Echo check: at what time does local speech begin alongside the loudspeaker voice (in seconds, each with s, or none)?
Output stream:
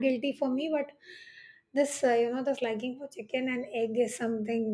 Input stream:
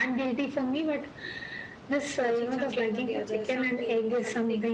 2.2 s